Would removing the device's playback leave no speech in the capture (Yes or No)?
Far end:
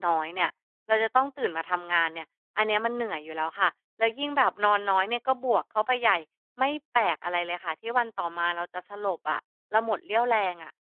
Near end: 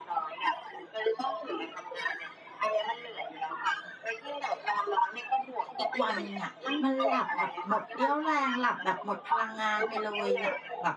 No